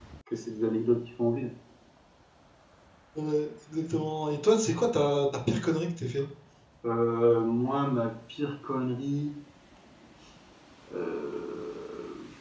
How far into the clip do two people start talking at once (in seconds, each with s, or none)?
none